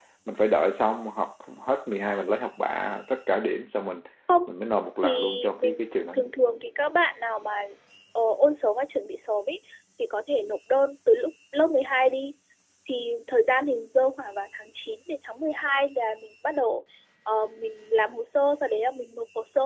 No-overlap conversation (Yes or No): No